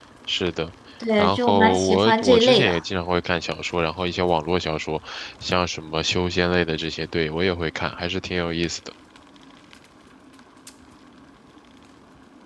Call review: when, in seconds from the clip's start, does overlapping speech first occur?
1.2 s

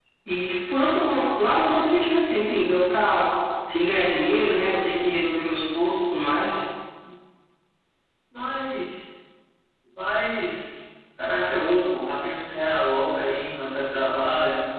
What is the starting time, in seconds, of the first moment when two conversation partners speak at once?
none

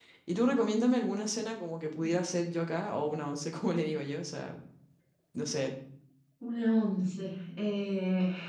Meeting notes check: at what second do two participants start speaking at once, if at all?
none

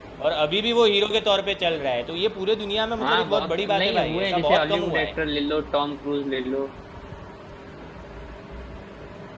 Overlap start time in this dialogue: 3.0 s

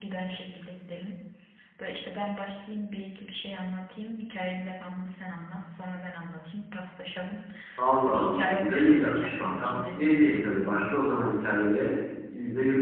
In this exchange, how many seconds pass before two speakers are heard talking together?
8.1 s

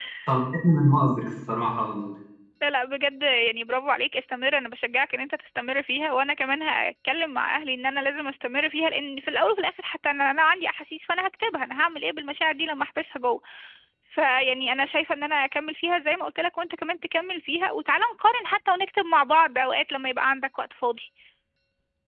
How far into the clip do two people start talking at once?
none

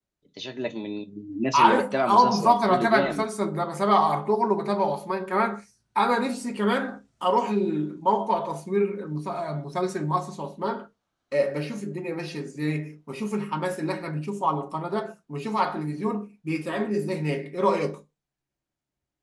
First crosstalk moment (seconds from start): 1.5 s

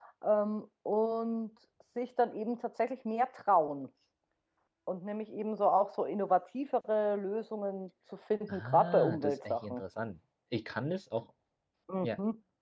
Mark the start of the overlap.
8.5 s

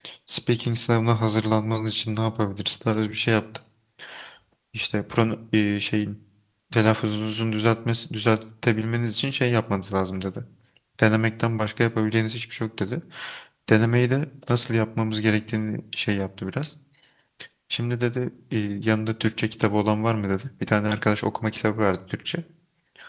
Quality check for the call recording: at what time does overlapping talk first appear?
none

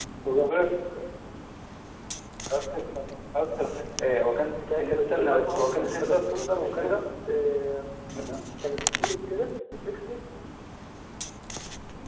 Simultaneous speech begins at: 4.7 s

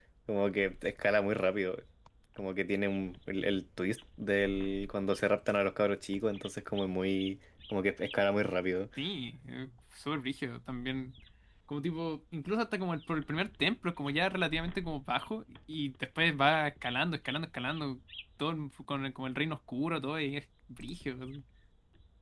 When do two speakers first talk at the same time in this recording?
none

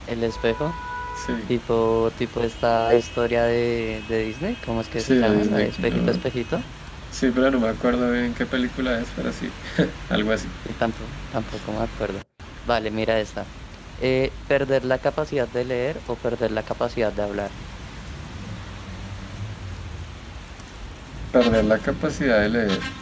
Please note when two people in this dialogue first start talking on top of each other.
5.0 s

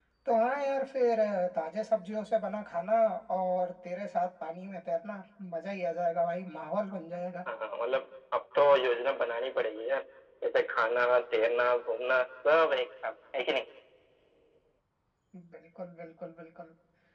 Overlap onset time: none

